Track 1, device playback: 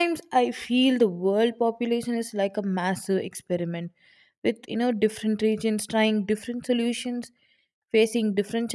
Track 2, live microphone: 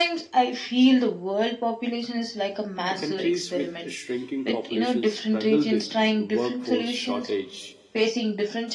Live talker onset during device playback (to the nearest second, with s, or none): 3 s